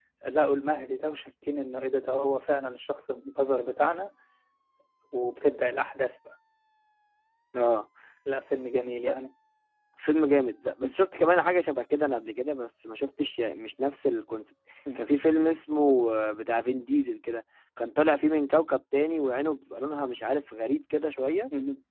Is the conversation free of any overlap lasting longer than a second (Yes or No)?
Yes